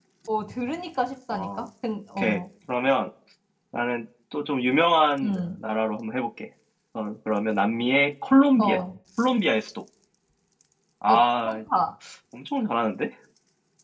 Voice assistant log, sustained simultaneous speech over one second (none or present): none